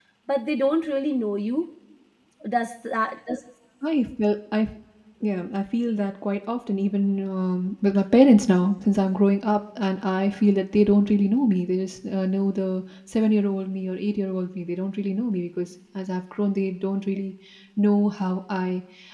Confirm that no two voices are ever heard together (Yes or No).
Yes